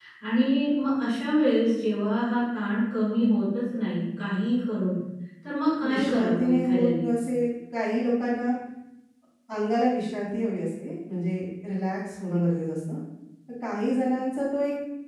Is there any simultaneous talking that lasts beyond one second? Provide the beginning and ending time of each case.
5.9-7.1

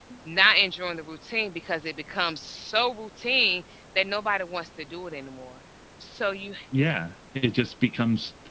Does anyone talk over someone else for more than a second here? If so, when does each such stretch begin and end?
none

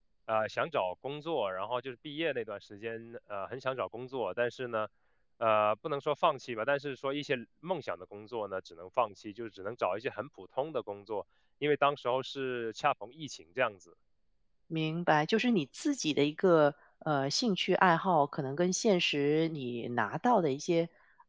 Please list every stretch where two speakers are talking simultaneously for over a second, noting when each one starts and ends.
none

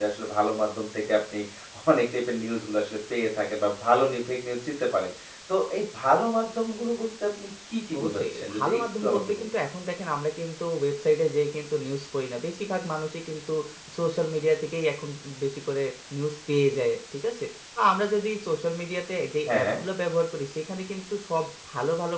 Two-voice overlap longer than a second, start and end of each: 8.0-9.5

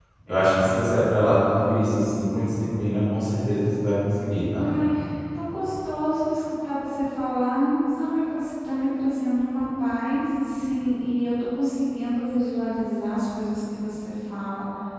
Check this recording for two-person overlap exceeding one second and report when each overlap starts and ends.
none

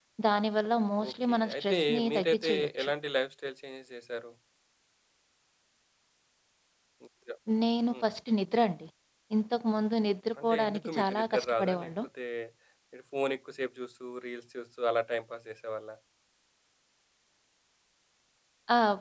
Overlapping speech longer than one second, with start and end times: 1.1-2.9, 10.4-11.9

